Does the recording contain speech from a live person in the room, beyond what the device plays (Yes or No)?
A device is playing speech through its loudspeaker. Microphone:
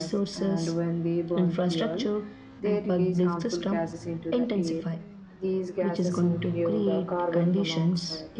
No